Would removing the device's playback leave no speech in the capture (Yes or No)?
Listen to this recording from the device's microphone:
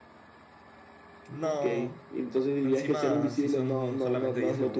No